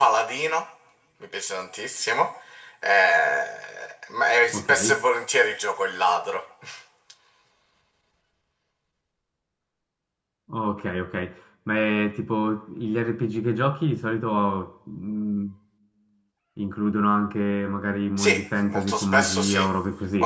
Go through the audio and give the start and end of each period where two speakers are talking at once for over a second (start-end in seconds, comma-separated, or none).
18.2-19.6